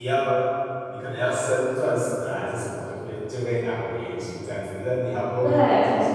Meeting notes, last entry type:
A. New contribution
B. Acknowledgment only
B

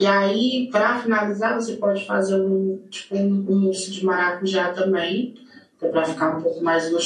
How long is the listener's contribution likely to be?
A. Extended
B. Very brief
B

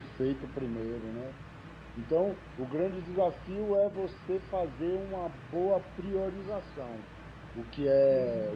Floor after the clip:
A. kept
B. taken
A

